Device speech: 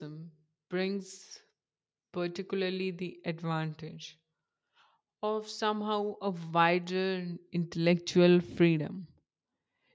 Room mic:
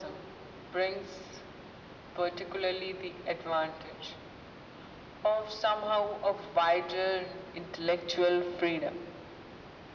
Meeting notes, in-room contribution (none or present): none